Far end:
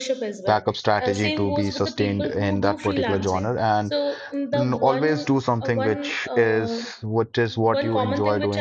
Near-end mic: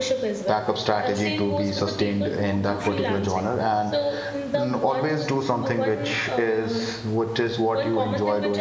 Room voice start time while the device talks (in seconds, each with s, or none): none